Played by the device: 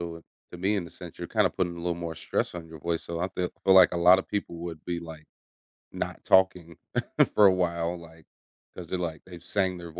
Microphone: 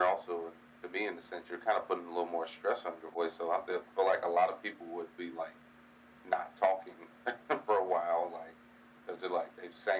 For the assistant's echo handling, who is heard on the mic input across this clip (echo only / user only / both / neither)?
echo only